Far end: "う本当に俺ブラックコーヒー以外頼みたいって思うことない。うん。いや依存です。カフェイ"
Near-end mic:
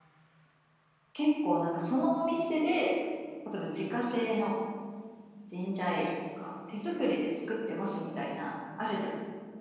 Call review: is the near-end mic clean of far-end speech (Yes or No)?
Yes